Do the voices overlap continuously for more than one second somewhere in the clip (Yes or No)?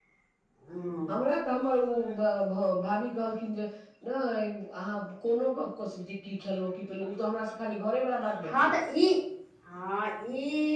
No